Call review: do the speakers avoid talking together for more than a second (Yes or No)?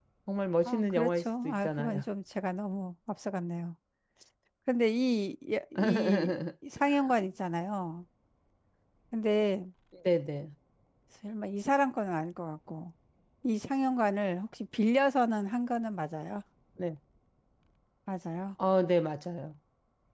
No